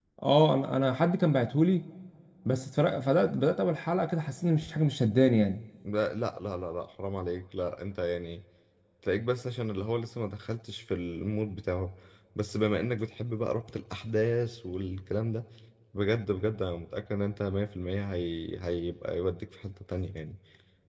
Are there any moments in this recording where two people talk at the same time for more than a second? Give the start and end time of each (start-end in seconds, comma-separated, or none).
none